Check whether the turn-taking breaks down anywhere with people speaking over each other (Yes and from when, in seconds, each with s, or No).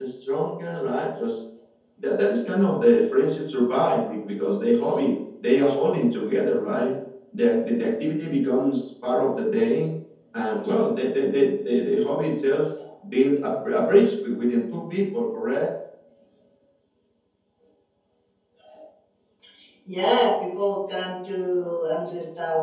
No